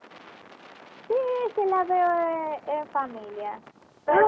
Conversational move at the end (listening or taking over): listening